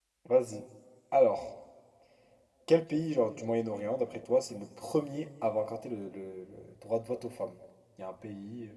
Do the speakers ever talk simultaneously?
No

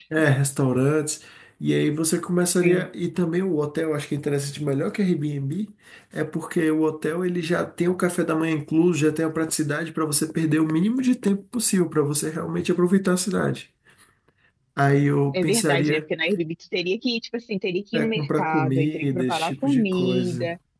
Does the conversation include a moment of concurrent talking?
Yes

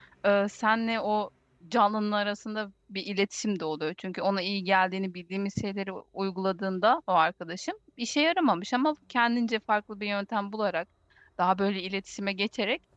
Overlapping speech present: No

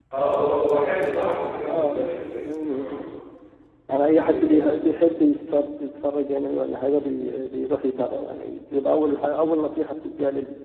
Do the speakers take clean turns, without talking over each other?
No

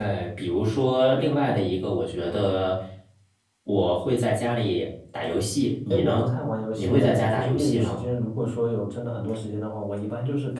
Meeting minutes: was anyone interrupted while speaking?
Yes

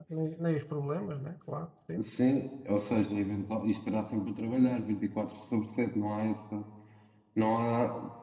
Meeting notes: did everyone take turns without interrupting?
Yes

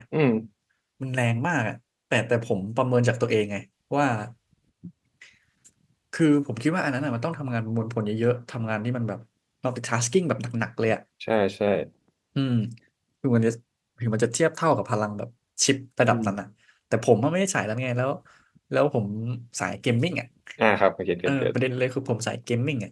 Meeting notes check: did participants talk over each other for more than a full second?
No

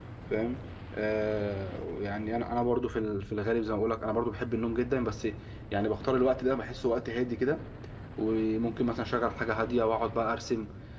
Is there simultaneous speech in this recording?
No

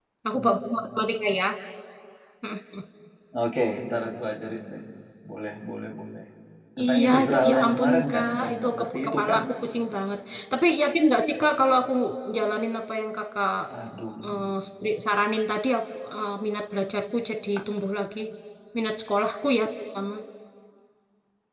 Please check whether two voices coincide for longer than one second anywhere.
Yes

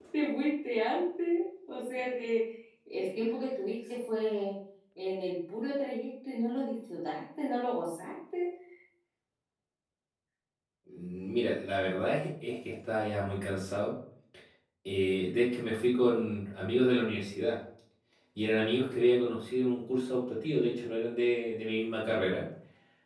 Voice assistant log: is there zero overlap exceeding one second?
Yes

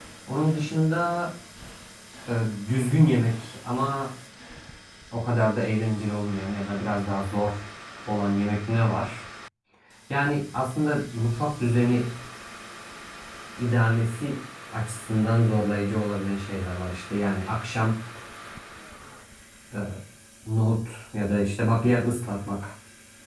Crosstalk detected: No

